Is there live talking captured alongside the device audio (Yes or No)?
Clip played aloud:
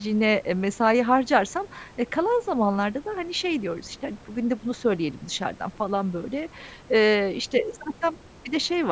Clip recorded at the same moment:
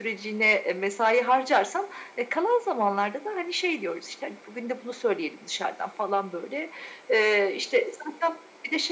No